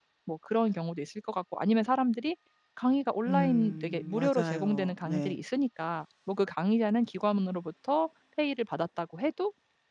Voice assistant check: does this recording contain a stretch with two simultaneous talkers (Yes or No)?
Yes